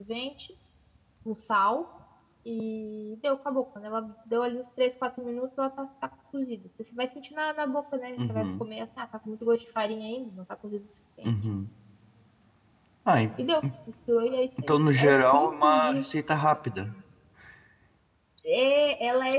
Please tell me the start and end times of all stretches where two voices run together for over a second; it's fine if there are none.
14.6-16.1

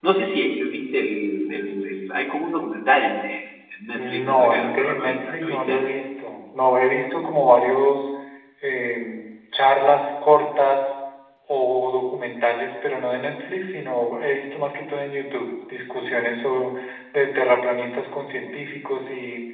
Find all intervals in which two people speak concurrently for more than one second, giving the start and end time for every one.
4.0-5.8

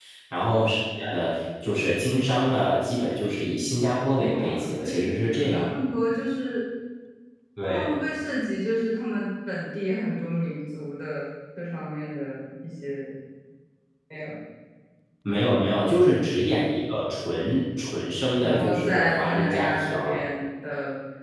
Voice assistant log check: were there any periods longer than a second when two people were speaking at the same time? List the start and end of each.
4.1-5.7, 18.4-19.9

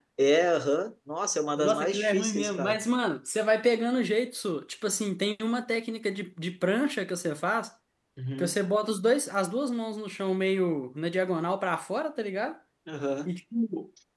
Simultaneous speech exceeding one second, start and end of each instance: 1.6-2.8

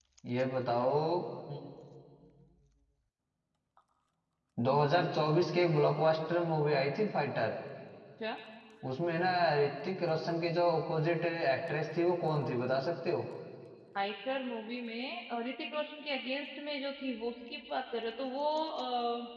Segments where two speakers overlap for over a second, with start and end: none

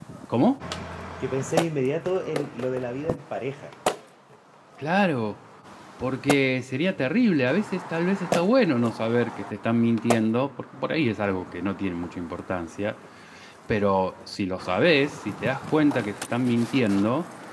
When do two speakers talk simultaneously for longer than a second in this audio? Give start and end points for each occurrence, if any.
none

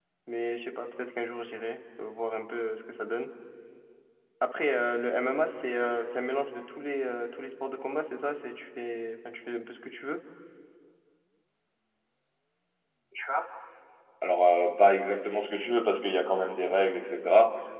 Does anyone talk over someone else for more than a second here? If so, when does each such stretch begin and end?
none

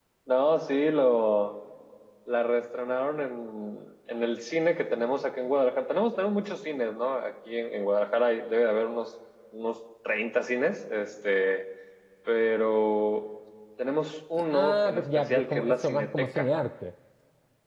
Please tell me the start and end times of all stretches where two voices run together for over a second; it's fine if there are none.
14.5-16.5

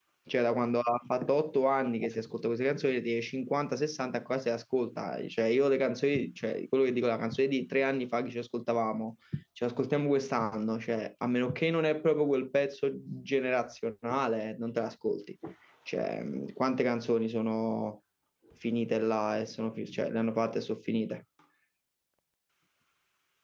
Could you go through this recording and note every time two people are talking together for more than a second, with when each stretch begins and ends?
none

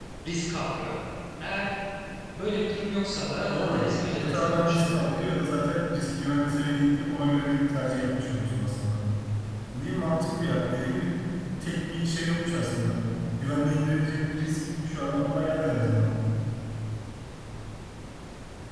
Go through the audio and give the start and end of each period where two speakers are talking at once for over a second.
3.5-5.0

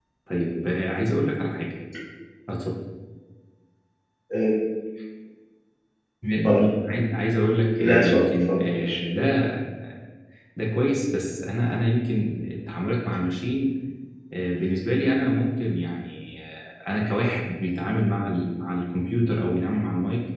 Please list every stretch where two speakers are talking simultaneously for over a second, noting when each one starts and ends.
7.8-9.2

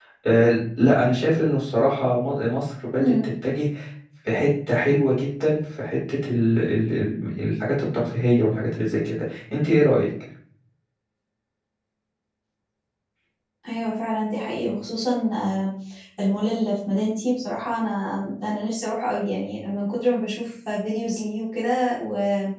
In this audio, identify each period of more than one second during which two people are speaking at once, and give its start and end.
none

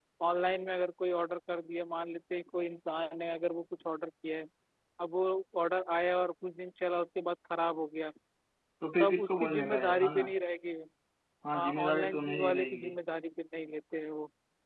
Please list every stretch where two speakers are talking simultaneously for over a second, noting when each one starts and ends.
9.0-10.2, 11.5-12.9

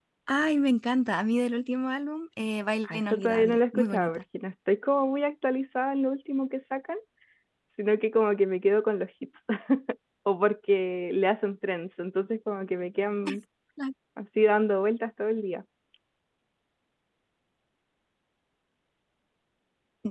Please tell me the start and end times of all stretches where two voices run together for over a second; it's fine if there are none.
2.8-4.2

